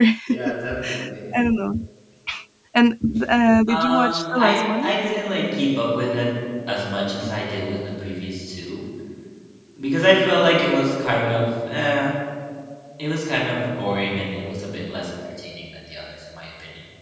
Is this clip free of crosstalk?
No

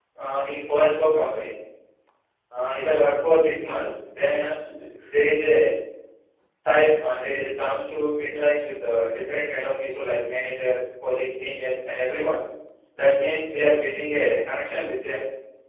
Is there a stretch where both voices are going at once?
No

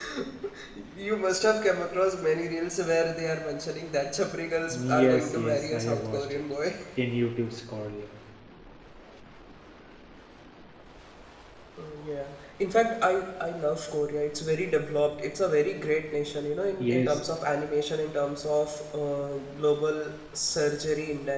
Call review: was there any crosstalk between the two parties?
Yes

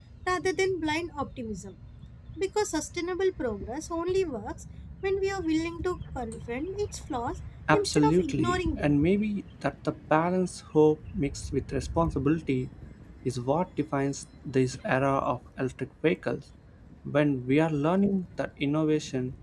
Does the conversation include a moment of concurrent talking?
Yes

